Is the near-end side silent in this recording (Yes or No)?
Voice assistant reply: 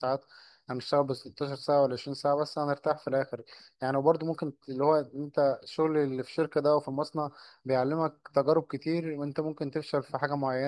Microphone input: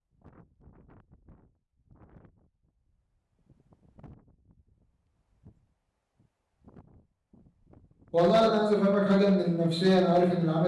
No